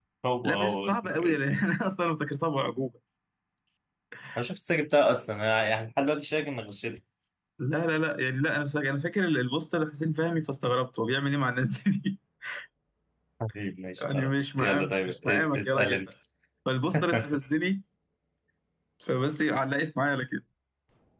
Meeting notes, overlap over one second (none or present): present